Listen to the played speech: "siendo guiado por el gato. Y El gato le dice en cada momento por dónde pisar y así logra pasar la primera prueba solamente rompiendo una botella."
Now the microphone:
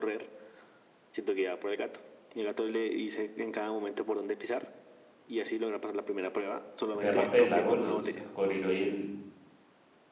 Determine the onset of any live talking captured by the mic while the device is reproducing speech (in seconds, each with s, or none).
6.9 s